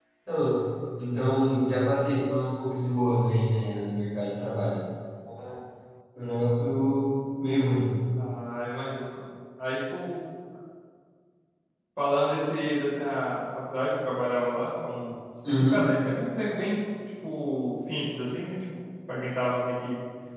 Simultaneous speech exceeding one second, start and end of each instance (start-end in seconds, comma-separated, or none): none